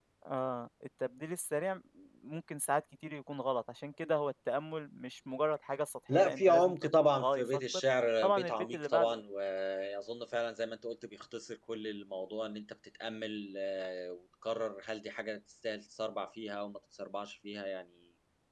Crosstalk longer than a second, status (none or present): present